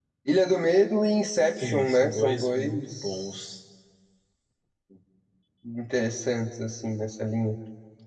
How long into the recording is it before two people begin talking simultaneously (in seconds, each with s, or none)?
1.6 s